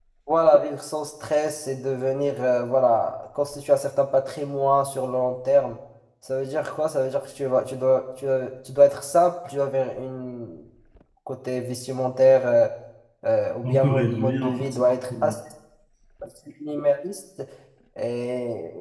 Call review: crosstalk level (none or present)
present